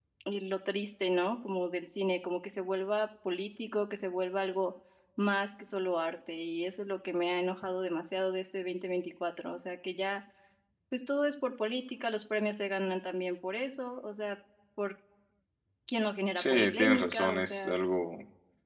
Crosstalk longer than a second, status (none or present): present